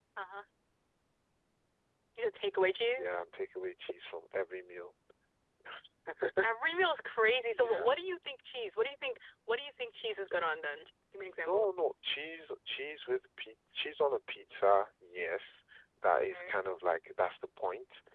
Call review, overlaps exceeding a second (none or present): none